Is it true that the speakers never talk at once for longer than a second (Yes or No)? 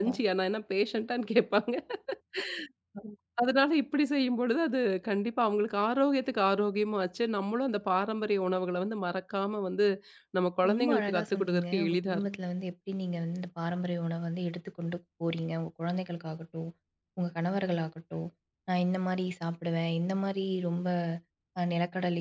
No